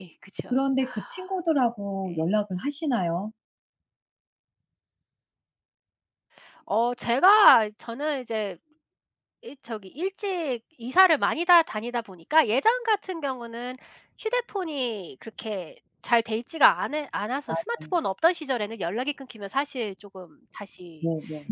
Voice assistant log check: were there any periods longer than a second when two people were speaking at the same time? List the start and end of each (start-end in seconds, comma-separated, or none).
none